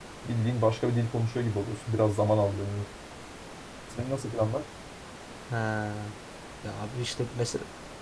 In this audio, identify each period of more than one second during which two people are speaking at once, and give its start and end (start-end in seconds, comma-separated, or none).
none